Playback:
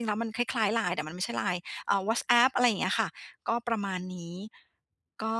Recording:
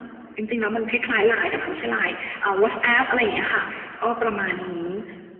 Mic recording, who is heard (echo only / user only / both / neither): echo only